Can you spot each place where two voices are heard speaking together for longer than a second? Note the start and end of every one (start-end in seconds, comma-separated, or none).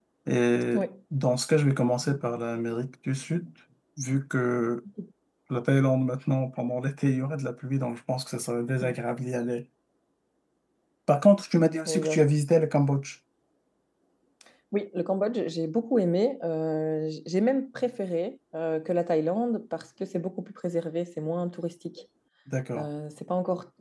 none